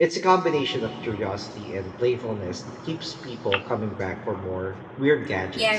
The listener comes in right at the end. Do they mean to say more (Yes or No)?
Yes